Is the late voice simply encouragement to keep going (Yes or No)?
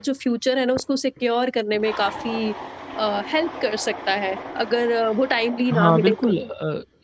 No